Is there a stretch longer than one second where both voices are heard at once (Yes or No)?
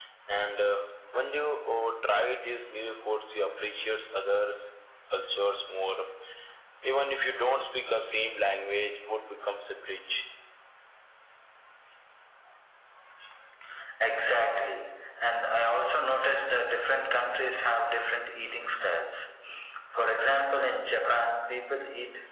No